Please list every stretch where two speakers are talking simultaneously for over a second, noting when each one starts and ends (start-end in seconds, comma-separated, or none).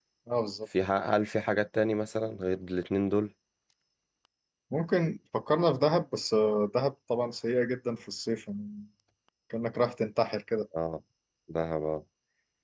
none